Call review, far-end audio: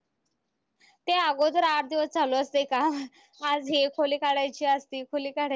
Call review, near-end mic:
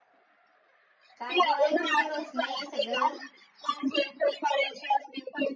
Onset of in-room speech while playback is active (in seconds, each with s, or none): 1.2 s